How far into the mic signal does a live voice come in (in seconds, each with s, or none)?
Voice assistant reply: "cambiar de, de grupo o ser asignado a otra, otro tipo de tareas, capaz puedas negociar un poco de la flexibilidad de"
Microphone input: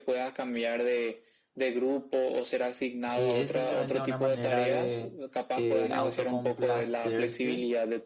3.1 s